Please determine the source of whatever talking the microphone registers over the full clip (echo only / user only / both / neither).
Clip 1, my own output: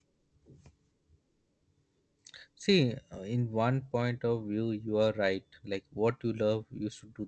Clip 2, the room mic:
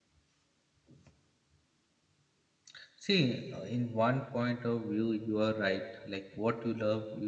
echo only